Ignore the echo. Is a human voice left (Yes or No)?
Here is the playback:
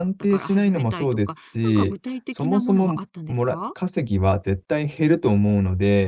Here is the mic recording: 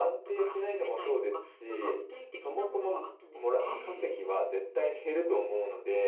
Yes